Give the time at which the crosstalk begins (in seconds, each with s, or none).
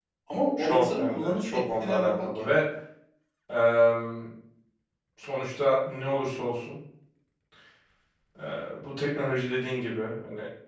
0.6 s